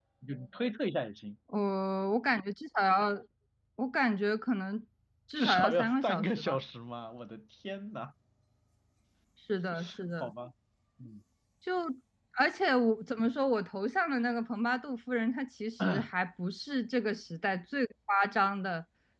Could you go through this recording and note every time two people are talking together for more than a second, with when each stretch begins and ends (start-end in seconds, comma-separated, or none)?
5.3-6.6